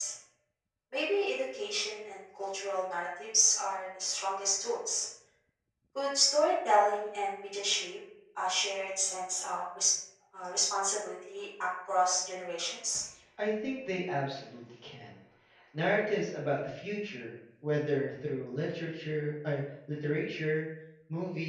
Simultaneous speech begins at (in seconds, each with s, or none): none